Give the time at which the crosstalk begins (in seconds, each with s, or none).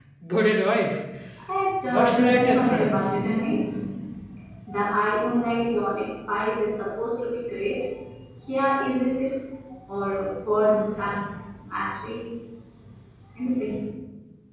1.9 s